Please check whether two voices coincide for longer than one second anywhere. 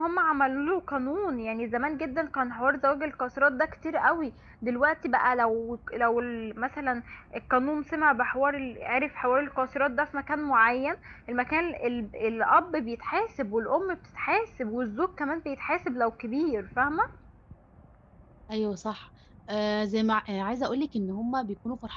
No

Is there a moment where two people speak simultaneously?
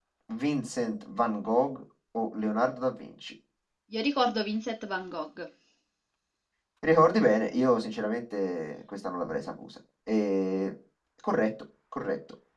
No

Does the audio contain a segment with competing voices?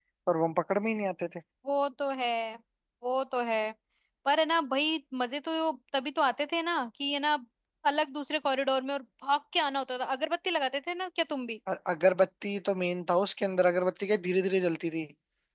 No

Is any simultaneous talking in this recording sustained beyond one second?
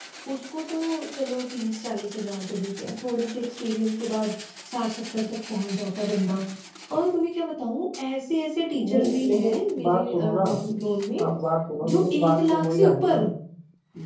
Yes, from 8.8 s

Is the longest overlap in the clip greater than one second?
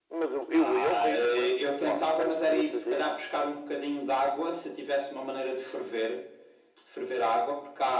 Yes, from 0.5 s

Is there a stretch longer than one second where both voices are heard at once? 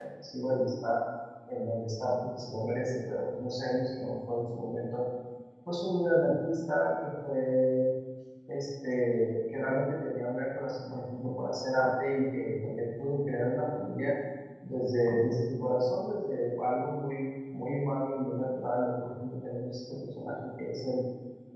No

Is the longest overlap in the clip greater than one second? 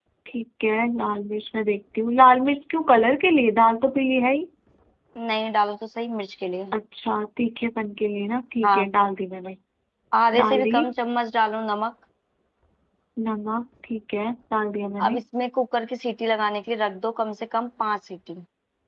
No

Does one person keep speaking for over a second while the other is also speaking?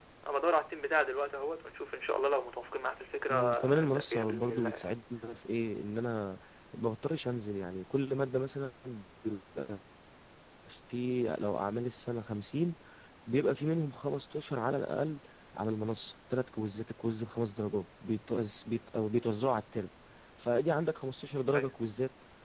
Yes, from 3.3 s

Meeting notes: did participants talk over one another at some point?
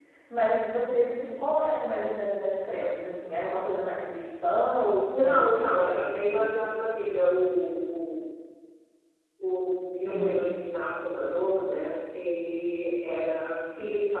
Yes, from 5.1 s

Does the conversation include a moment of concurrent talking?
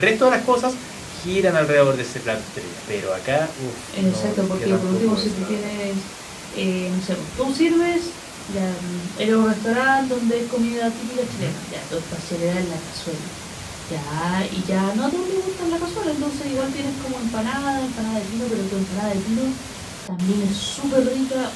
Yes, from 4.0 s

